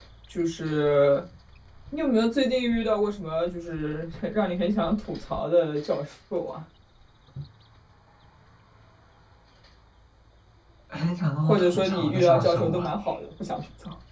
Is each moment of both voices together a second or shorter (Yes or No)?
No